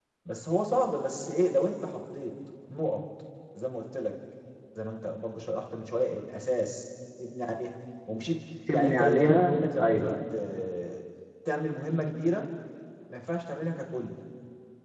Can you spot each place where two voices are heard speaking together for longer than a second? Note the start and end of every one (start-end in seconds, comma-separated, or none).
8.7-10.2